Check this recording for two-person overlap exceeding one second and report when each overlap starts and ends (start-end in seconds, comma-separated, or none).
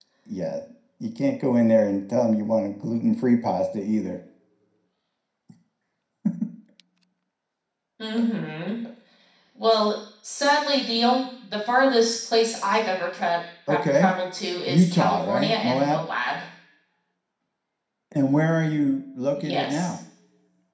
14.7-16.0